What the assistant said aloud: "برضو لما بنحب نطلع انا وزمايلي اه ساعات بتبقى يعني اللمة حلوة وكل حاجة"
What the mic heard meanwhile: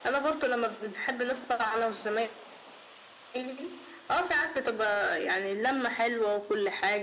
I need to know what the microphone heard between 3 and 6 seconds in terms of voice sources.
echo only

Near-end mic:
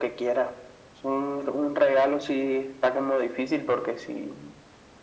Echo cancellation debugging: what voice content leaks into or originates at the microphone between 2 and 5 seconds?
echo only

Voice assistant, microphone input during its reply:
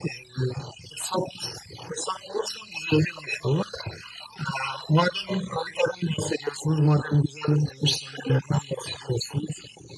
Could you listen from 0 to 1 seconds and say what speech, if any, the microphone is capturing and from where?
echo only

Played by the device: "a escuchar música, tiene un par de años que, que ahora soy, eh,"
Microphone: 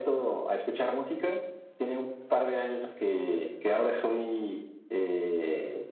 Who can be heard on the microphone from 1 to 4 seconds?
echo only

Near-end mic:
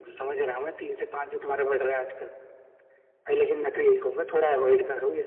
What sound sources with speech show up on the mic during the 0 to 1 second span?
echo only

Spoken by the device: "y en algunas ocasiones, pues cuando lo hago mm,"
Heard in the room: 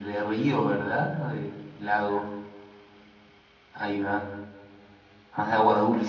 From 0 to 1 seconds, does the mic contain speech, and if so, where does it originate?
user only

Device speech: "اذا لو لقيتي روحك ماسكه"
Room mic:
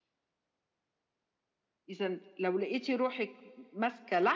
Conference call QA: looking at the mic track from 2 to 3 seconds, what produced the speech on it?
echo only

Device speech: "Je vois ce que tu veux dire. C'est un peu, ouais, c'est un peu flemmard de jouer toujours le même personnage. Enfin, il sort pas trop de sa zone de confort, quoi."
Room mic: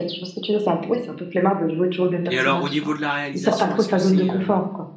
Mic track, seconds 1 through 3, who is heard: both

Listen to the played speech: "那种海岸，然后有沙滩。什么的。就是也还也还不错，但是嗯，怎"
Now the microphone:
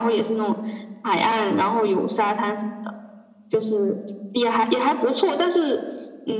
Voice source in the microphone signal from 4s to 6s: echo only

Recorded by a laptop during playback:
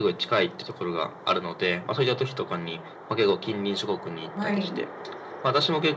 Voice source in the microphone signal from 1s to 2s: echo only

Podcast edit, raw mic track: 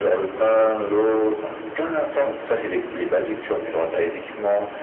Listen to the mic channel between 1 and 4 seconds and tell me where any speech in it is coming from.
echo only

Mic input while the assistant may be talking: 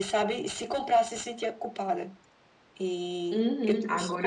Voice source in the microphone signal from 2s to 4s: both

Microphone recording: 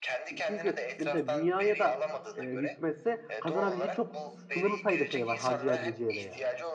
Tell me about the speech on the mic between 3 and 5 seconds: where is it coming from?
both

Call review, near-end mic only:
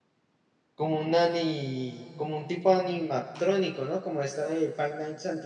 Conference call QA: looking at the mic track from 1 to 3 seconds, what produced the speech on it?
user only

